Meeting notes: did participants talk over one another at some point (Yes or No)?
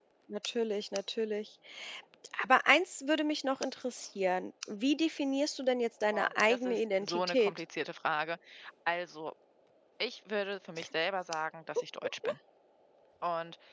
Yes